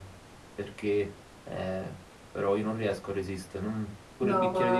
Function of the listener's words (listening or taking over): taking over